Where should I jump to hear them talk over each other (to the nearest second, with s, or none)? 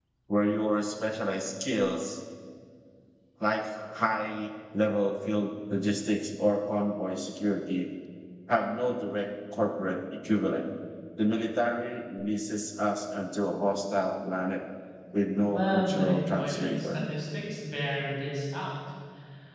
15 s